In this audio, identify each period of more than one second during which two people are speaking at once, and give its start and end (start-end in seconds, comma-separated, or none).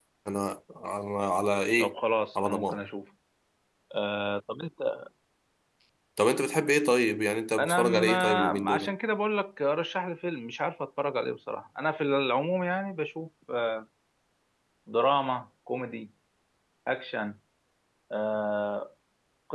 7.6-8.9